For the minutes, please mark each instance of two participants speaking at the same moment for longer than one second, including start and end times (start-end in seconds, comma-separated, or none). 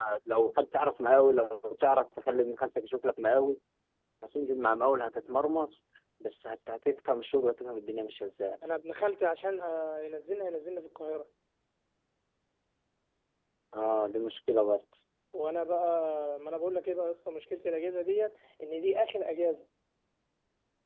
none